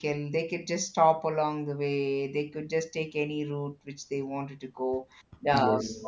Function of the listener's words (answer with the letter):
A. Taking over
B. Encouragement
B